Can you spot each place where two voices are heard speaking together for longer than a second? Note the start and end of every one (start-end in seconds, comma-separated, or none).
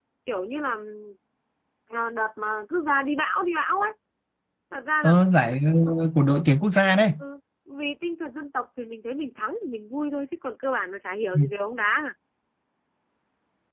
none